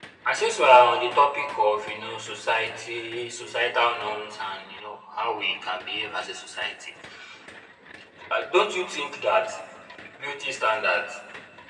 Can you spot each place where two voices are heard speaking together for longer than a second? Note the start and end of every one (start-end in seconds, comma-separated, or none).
none